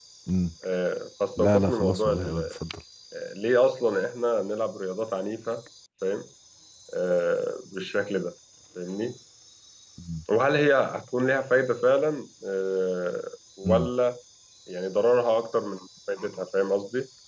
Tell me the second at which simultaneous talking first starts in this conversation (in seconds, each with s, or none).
1.4 s